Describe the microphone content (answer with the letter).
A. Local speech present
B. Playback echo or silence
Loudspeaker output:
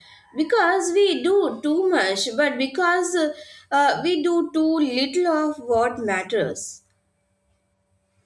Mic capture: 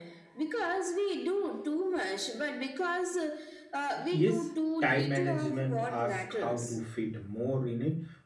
A